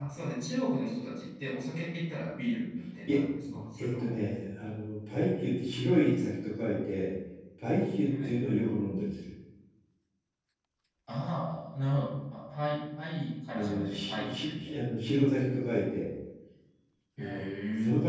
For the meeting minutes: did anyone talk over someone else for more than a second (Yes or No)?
Yes